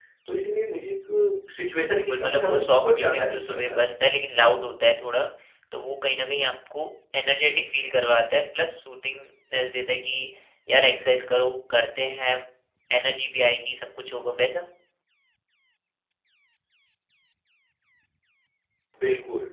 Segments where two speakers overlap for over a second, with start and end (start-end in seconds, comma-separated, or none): 1.9-3.8